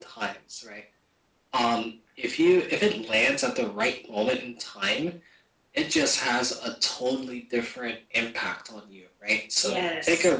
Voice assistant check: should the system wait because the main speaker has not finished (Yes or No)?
Yes